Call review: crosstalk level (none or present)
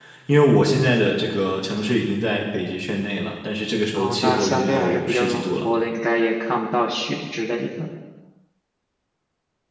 present